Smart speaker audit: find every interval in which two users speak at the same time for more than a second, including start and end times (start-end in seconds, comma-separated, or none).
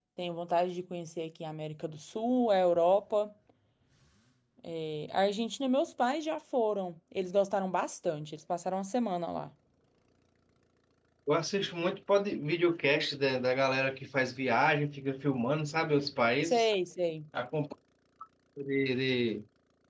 none